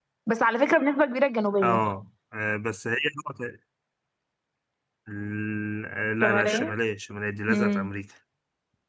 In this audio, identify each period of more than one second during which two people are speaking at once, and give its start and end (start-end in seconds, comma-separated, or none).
none